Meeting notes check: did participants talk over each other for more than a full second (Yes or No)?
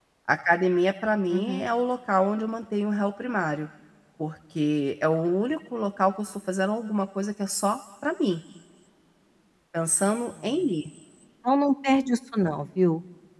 No